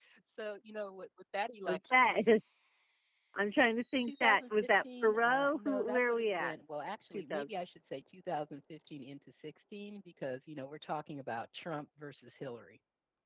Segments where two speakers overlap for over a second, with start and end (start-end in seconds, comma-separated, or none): 4.1-6.5